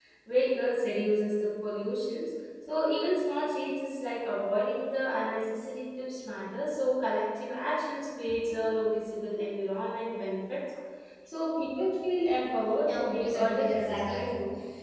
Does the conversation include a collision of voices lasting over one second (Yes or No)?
Yes